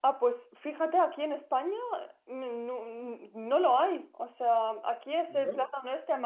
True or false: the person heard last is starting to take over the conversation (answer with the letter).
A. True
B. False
B